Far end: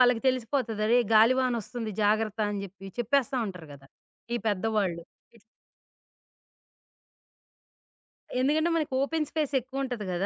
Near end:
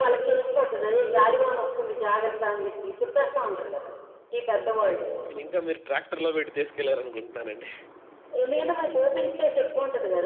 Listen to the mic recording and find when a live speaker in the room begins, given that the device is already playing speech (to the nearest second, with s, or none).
5 s